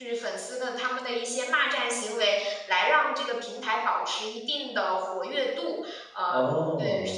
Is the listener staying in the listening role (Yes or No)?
Yes